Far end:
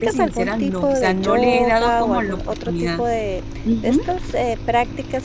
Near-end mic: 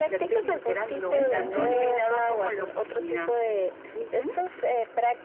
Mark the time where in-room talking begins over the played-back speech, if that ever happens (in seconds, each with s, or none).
0.9 s